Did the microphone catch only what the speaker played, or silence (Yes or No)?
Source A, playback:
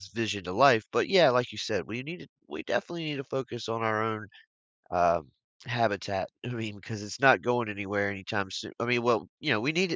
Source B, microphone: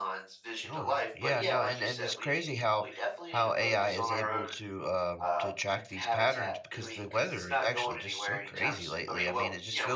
No